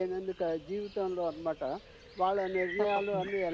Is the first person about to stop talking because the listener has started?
No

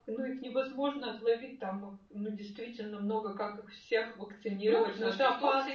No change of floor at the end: No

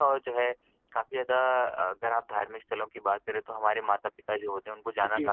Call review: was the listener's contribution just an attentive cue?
Yes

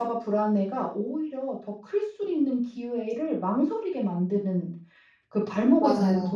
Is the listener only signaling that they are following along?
Yes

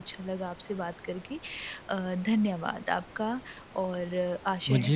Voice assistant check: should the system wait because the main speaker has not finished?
No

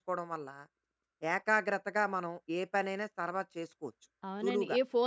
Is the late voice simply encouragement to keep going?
No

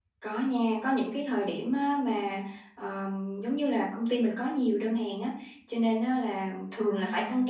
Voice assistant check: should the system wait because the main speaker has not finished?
Yes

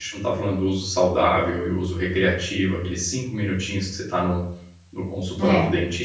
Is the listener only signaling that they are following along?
Yes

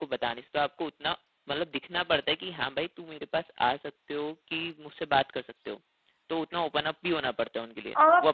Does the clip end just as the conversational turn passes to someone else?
Yes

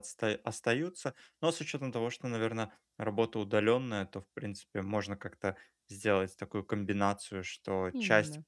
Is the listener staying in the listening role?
Yes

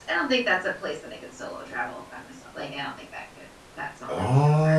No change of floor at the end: No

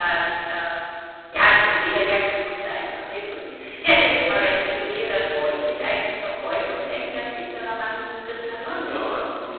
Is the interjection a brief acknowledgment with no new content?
No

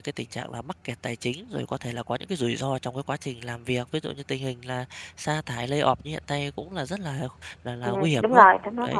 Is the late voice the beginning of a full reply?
Yes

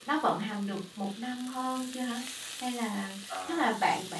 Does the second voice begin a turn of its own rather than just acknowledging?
No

